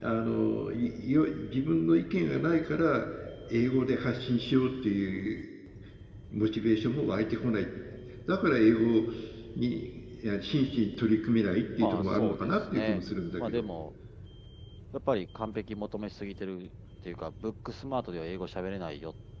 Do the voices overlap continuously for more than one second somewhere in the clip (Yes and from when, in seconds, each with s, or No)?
Yes, from 11.8 s